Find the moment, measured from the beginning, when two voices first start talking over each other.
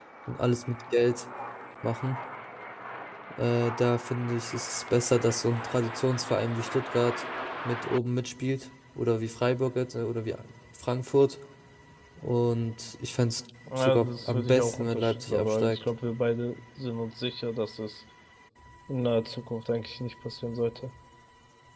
13.8 s

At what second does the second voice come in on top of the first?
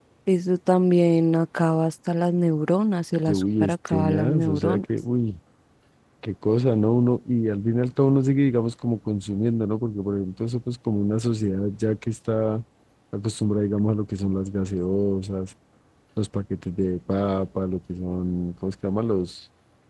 3.3 s

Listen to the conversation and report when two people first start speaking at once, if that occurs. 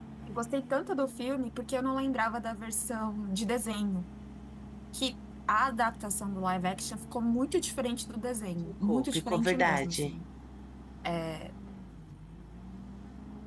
8.8 s

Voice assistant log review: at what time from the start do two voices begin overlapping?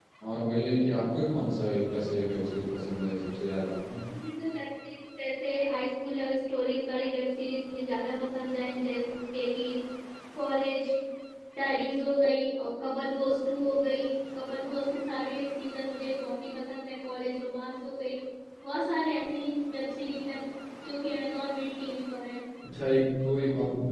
none

